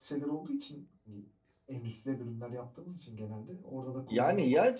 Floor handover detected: Yes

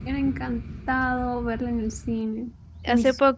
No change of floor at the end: No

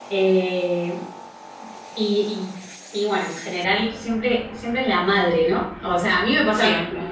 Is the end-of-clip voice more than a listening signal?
No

